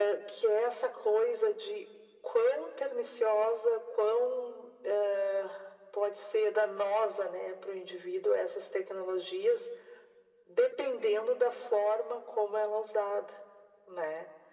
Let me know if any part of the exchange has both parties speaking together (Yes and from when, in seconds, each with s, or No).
No